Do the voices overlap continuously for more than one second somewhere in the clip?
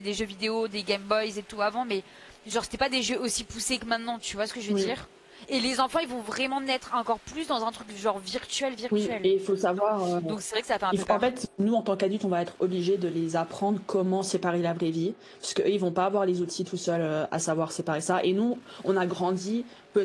No

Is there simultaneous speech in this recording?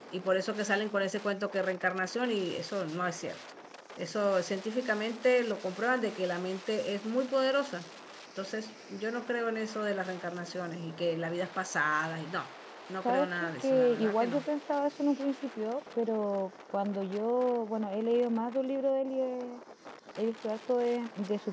Yes, from 13.0 s

